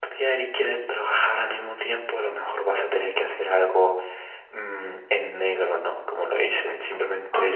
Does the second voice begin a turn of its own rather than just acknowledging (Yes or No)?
No